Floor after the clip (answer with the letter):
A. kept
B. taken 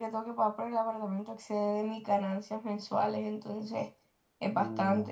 B